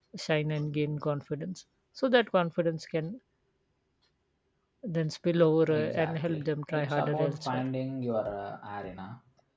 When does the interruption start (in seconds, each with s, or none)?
5.7 s